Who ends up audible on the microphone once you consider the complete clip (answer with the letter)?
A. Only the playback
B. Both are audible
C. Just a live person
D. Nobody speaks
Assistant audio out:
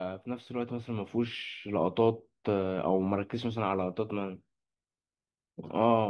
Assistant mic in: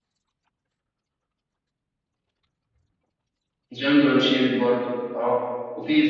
C